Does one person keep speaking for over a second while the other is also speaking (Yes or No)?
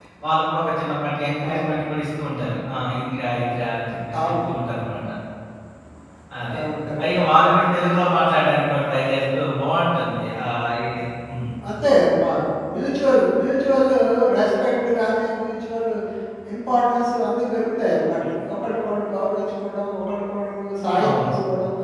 No